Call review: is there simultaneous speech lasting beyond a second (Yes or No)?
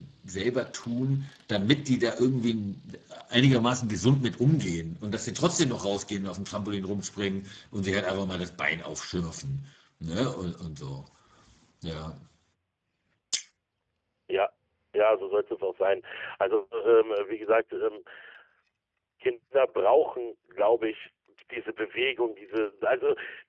No